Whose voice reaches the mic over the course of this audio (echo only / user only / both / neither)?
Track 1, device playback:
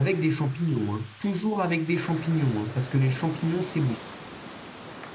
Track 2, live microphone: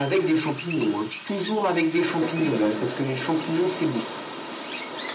both